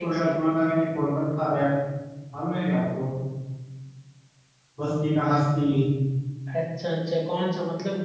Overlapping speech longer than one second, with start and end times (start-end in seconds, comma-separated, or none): none